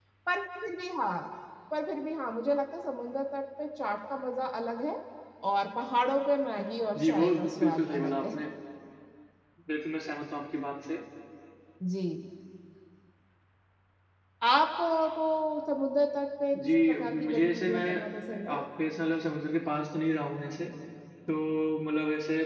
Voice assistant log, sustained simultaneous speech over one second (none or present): present